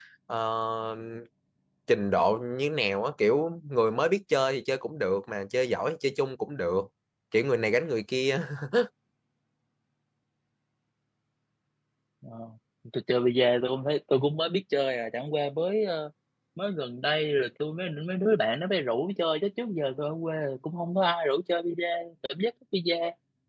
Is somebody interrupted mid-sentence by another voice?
No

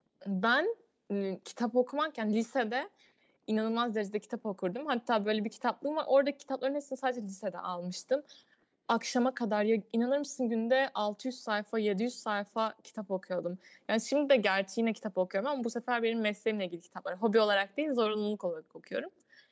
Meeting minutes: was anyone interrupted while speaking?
No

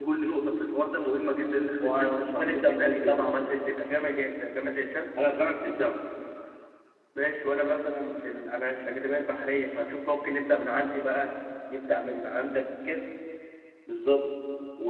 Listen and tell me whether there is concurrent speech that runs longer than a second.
Yes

